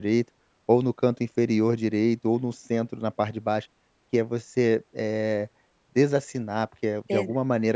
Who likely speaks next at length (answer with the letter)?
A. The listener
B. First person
B